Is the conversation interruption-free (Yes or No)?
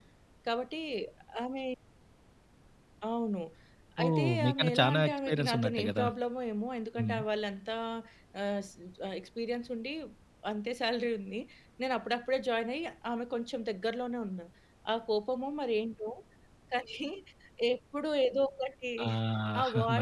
No